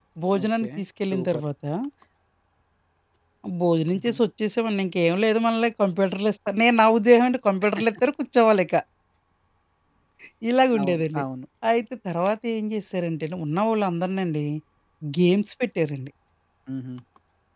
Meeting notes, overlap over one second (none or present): none